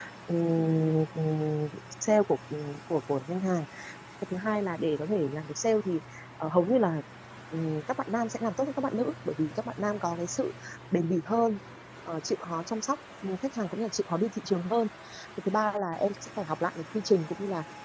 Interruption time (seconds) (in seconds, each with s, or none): none